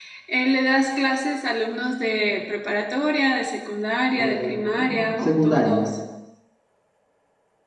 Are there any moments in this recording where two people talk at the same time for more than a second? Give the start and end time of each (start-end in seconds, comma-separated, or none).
4.2-5.8